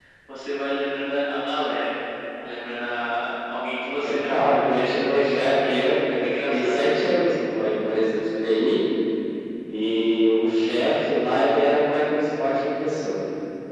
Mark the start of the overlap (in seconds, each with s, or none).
4.0 s